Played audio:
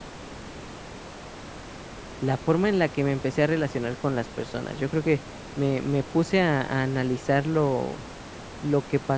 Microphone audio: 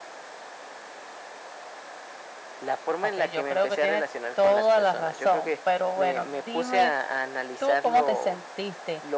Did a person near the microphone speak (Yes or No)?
Yes